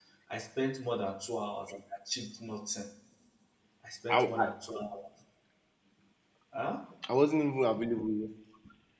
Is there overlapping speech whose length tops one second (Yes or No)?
No